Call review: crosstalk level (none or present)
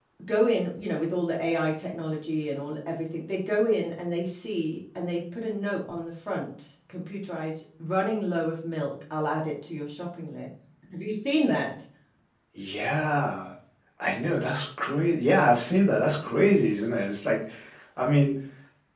none